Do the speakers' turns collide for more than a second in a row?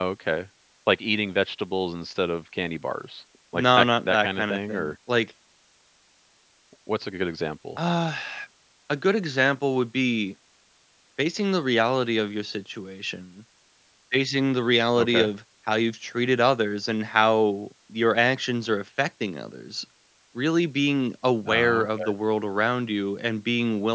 Yes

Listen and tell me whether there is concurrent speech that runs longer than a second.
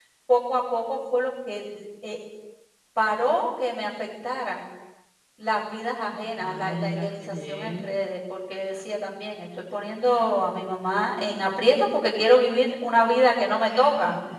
Yes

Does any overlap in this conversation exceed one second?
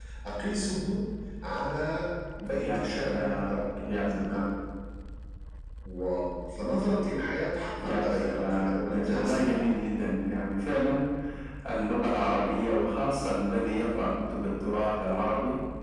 Yes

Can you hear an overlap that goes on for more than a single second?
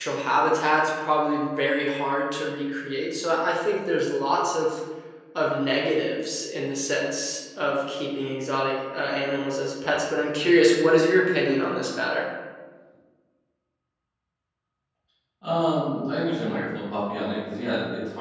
No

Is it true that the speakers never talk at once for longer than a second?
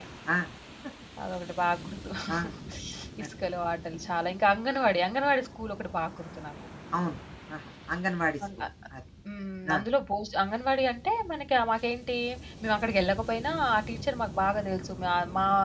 Yes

